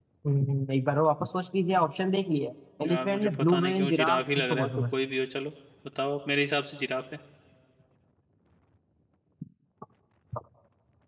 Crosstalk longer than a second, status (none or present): present